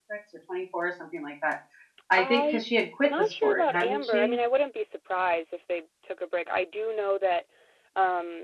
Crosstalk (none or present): present